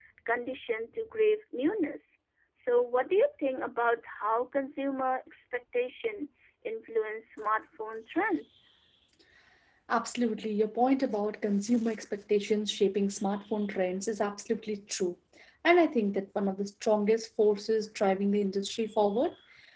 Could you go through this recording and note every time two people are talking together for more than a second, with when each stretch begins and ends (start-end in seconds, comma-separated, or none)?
none